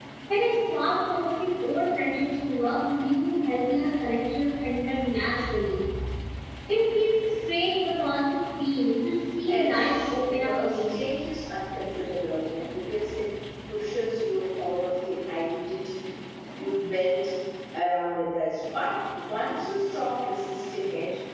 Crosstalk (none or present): present